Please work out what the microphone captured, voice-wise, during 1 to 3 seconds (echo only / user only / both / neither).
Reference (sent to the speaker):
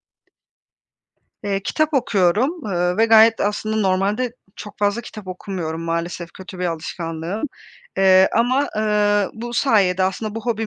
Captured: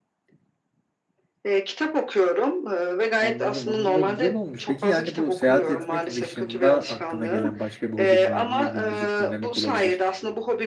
echo only